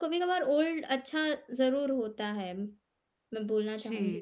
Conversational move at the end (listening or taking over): taking over